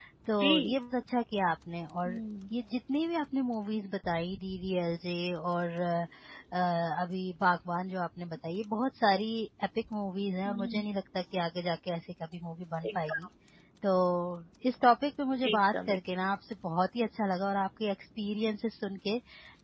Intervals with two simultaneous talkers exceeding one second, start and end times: none

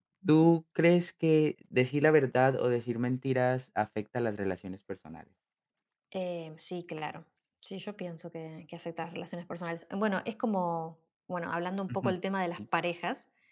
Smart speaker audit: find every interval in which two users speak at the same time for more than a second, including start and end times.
none

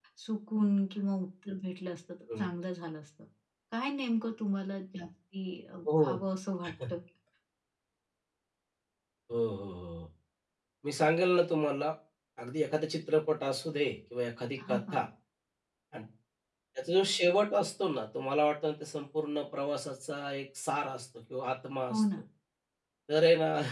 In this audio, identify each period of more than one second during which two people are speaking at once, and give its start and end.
none

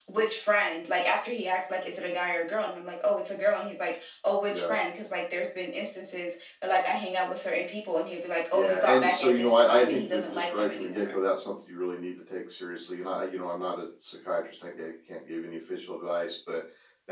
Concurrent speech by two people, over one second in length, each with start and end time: 8.5-11.2

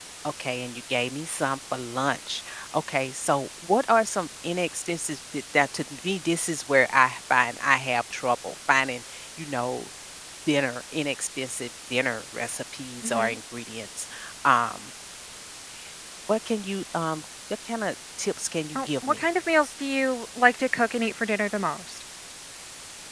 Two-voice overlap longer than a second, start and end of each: none

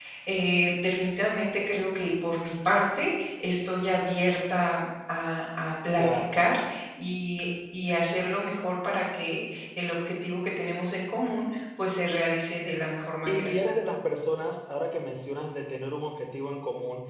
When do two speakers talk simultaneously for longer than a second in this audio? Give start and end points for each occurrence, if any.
none

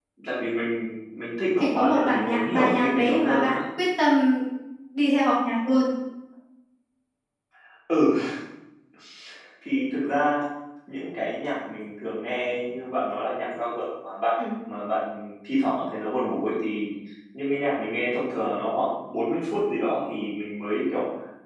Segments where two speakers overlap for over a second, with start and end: 1.6-3.6

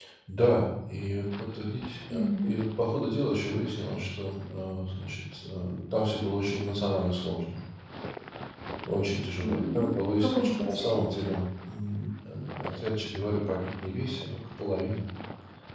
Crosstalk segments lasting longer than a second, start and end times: 9.4-11.0

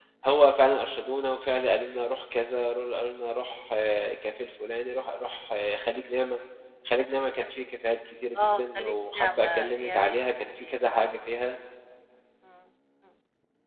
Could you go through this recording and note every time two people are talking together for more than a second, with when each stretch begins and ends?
8.4-10.8

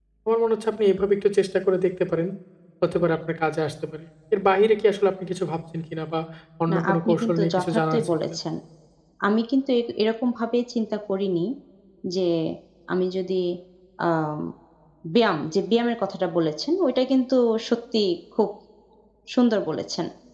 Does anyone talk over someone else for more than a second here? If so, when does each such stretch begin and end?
6.7-8.4

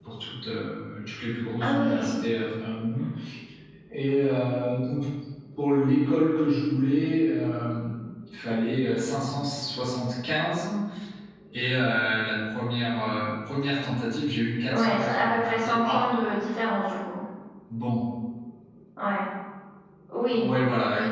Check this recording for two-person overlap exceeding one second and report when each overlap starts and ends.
14.7-16.0

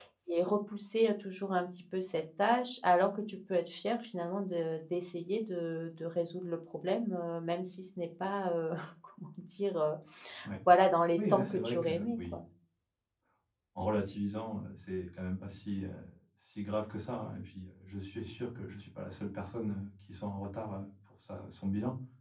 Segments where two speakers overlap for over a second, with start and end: 11.2-12.4

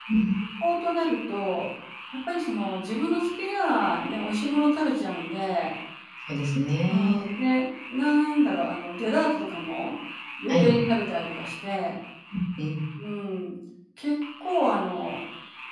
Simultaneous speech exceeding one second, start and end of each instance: none

